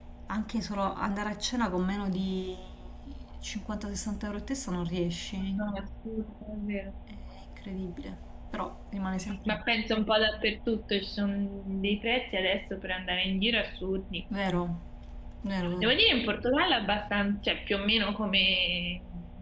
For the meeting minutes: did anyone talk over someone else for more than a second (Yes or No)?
No